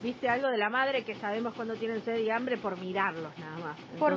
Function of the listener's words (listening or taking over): taking over